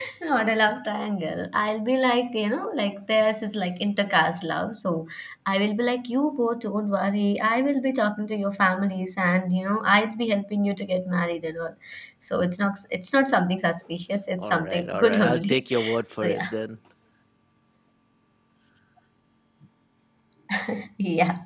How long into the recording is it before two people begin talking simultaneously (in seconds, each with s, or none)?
14.4 s